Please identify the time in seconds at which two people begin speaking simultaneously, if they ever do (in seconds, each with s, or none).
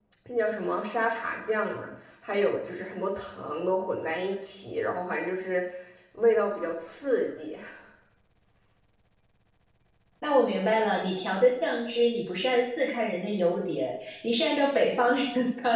none